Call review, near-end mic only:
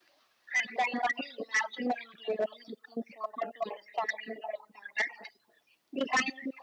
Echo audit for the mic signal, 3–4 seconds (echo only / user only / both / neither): echo only